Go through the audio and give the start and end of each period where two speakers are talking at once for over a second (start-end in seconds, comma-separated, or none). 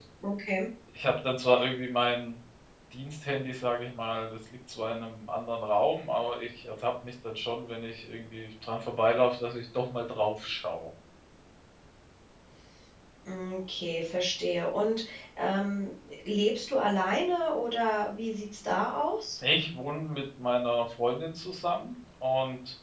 none